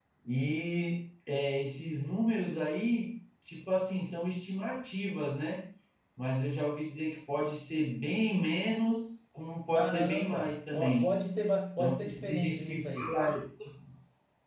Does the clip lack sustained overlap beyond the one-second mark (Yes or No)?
No